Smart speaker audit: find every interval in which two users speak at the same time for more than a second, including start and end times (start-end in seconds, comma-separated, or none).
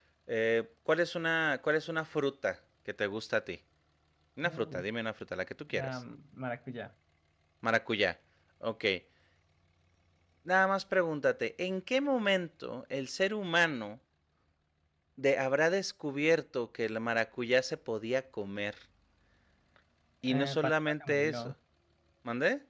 20.3-21.5